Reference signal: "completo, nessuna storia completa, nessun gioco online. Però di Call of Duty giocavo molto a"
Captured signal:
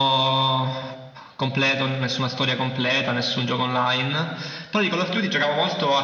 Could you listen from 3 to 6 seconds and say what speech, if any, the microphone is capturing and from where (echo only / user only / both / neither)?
echo only